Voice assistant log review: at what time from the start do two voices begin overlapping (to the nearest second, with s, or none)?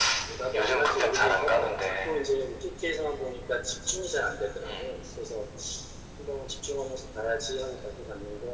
1 s